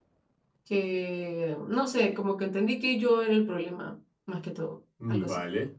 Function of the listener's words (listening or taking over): taking over